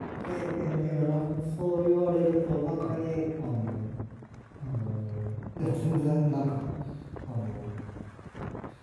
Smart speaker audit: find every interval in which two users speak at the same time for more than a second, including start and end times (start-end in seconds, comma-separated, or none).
none